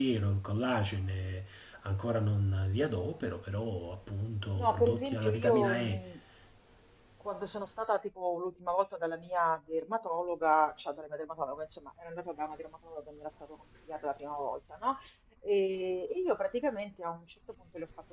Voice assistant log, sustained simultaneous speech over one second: present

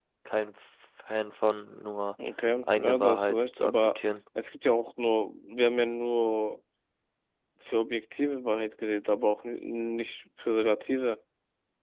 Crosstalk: present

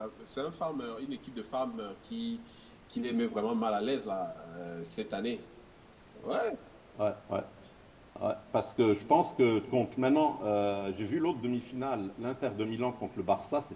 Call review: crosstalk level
none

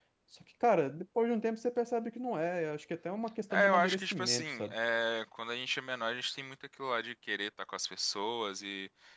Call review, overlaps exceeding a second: present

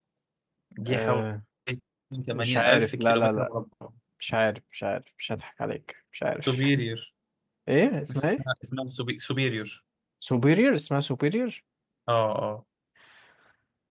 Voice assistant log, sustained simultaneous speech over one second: present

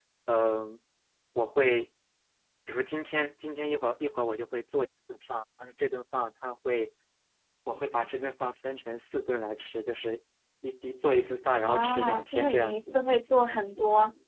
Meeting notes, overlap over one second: present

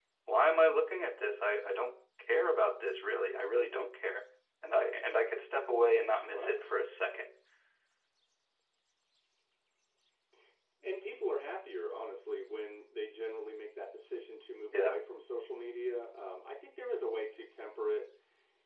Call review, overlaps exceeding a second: none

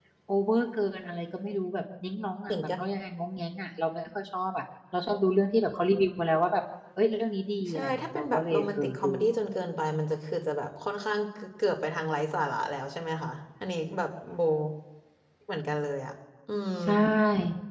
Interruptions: present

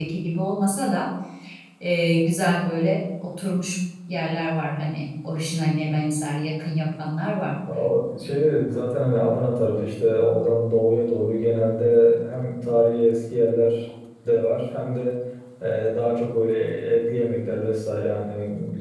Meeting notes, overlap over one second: none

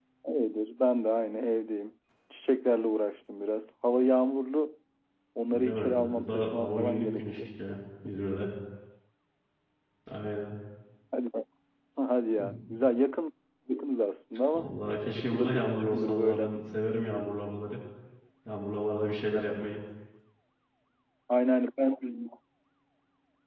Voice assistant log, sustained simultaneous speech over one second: present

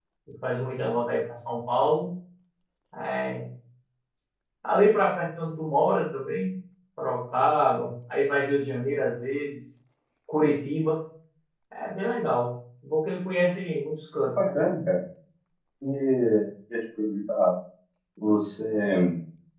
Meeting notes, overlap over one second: none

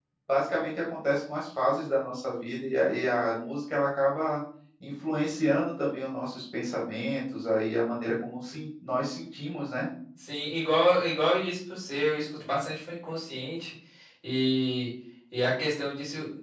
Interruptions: none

